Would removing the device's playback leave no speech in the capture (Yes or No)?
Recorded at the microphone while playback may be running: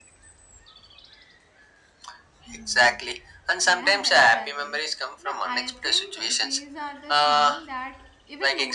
No